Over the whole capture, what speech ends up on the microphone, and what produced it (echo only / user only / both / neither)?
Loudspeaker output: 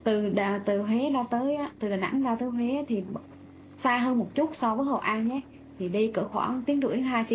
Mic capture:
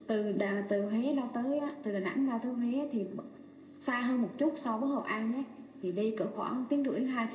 echo only